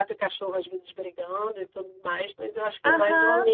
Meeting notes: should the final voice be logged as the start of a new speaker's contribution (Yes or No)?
Yes